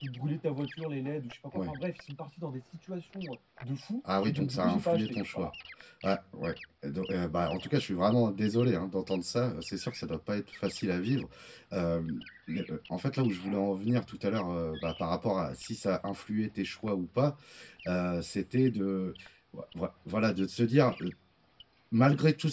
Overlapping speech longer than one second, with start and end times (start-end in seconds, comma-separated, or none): 4.2-5.5